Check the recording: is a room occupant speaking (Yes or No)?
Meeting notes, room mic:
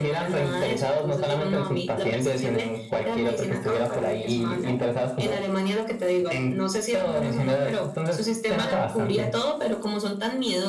No